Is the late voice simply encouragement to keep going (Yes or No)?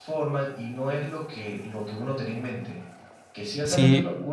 Yes